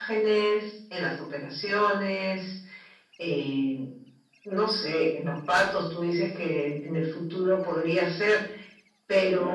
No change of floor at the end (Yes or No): Yes